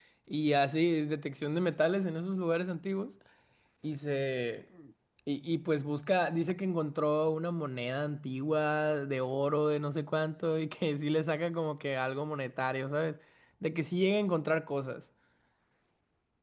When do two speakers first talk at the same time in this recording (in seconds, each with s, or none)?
none